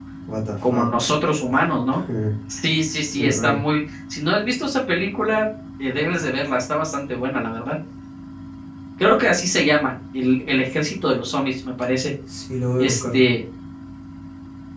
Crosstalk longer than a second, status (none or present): none